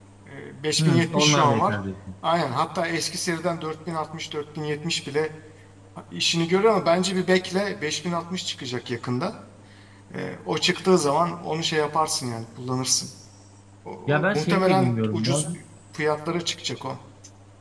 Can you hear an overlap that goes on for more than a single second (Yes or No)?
Yes